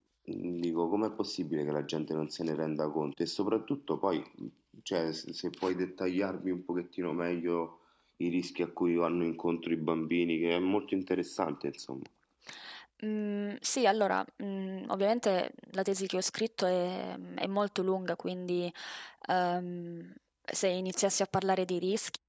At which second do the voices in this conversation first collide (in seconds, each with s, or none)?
none